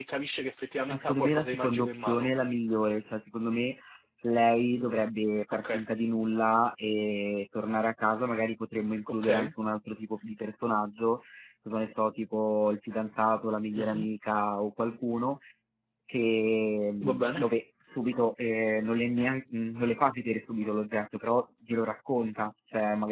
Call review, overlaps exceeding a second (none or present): present